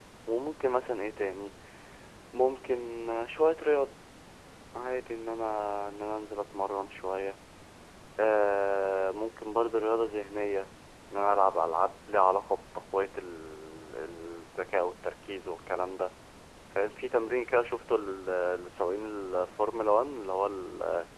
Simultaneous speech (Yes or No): No